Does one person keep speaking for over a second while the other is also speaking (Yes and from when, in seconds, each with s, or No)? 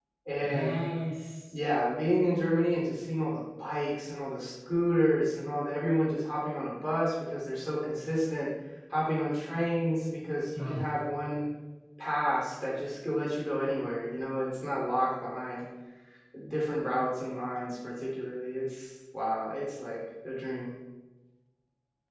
No